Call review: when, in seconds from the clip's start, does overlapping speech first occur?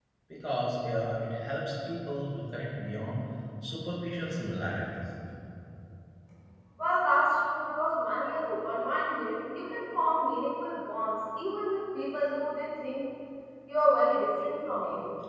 none

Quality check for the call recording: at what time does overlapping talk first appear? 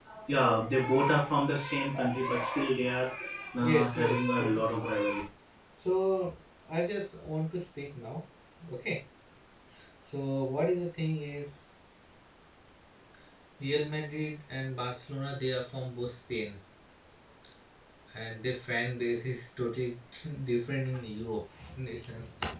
4 s

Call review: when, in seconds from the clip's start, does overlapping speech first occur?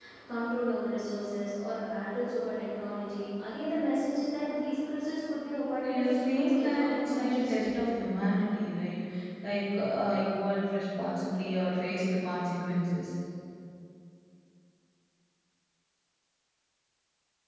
6 s

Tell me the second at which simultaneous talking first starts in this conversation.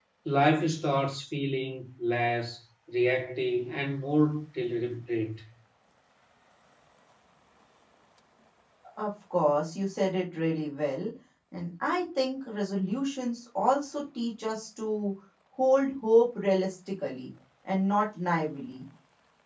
none

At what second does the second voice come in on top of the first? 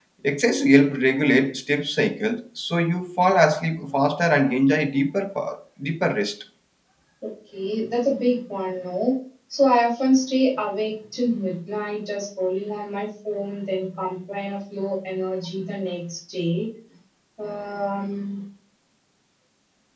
none

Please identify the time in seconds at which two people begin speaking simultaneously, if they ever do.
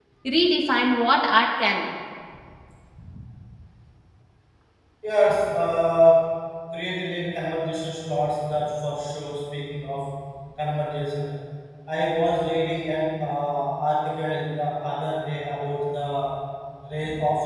none

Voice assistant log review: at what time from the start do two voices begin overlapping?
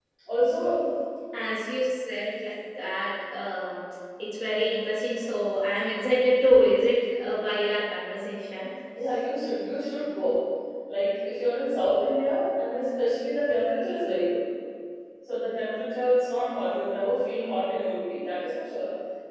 none

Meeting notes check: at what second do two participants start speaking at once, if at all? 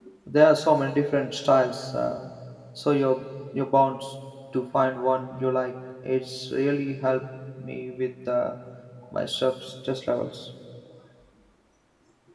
none

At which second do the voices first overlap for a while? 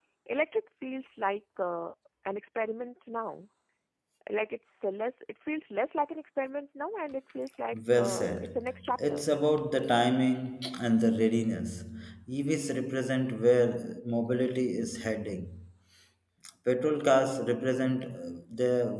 8 s

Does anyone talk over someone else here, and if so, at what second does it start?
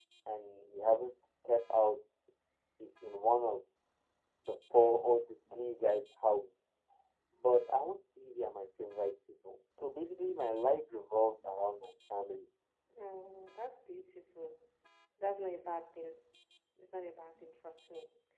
none

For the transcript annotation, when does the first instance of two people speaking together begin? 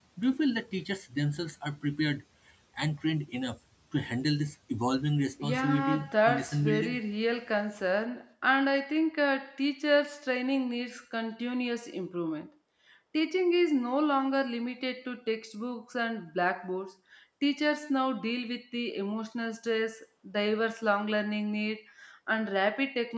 5 s

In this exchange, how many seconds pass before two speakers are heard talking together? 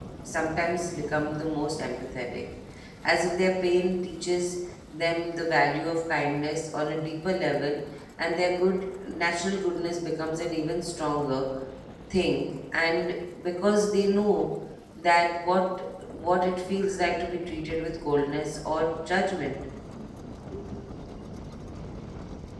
none

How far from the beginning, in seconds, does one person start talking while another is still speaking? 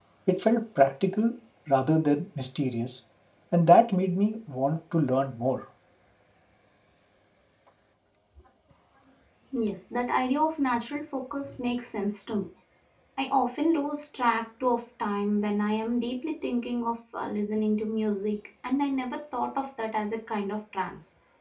none

